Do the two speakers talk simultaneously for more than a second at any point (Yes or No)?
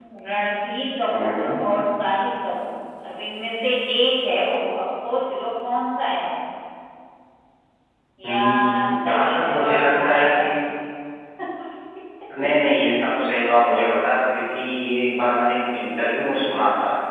Yes